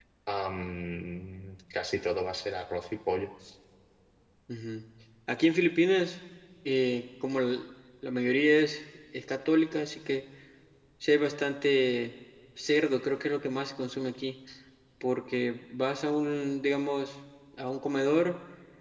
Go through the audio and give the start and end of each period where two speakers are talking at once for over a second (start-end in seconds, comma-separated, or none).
none